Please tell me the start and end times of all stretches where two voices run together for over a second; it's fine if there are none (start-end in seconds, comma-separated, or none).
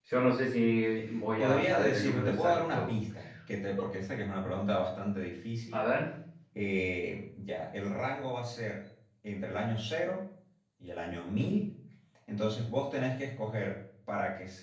1.4-2.9